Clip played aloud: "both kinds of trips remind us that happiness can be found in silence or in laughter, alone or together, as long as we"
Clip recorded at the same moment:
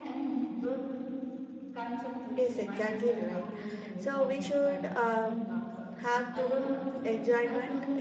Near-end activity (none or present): present